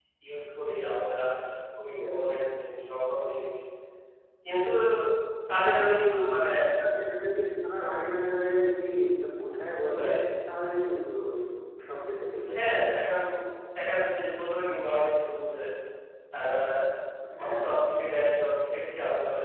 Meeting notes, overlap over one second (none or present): none